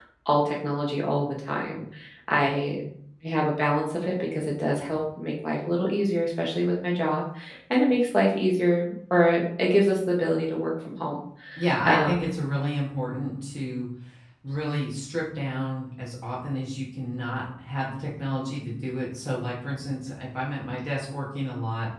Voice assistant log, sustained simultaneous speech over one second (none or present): none